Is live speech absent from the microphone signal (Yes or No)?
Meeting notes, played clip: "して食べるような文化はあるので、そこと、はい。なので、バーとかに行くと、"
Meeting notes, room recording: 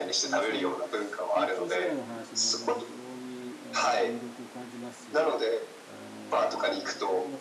No